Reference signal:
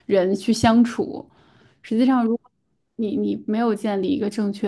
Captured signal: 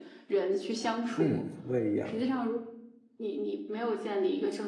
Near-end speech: present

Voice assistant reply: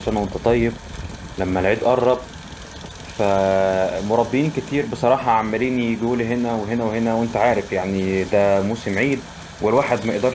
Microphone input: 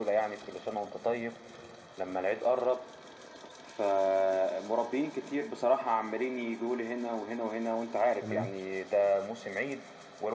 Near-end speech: present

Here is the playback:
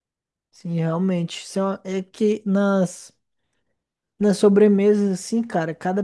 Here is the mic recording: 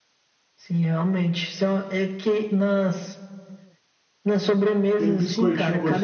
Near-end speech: present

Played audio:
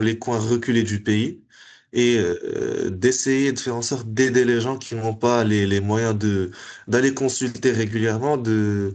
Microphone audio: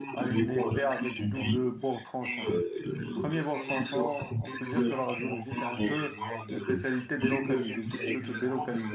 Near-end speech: present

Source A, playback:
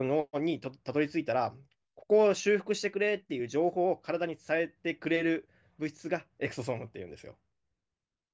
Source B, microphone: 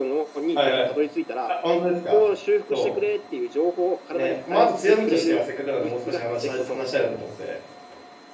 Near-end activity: present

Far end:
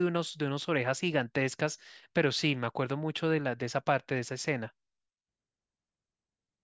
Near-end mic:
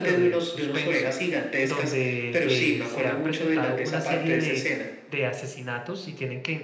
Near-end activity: present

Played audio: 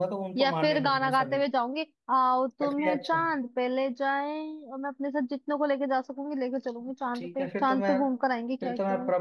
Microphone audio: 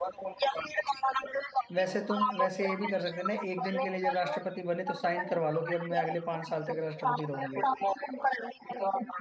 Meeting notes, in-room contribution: present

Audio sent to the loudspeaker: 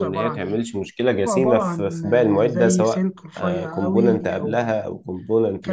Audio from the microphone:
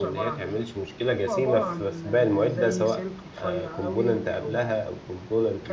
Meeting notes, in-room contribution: none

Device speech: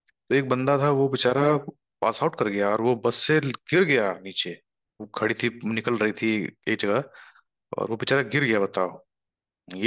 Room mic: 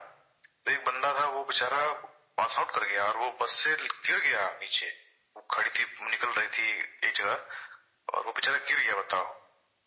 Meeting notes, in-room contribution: none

